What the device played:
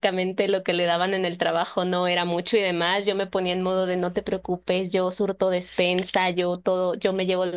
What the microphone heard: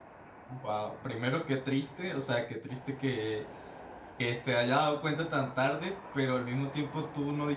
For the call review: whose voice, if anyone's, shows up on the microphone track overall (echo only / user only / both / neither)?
user only